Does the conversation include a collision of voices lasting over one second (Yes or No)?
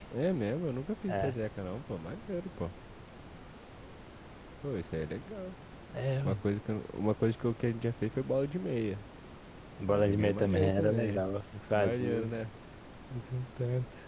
Yes